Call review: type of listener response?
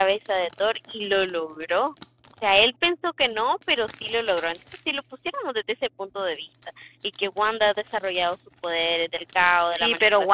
taking over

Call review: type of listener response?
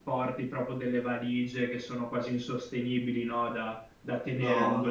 listening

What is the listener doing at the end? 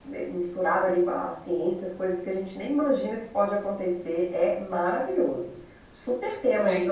taking over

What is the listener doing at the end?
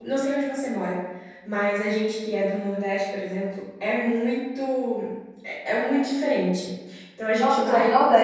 taking over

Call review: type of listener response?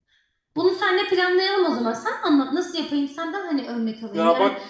listening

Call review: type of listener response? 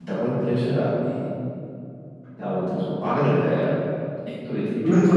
taking over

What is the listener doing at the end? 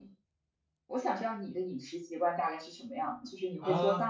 taking over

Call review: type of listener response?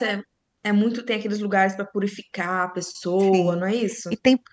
taking over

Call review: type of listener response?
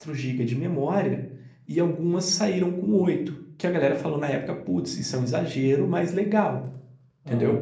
taking over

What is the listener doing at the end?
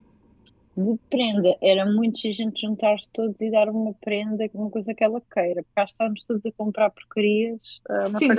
taking over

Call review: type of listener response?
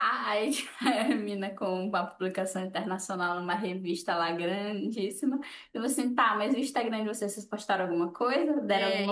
taking over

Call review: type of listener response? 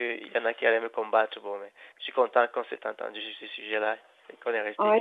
taking over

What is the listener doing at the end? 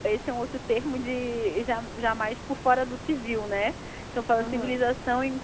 listening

